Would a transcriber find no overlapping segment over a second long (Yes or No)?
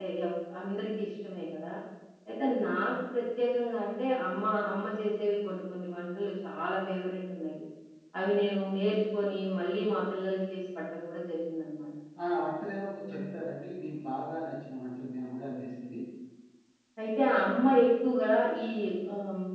Yes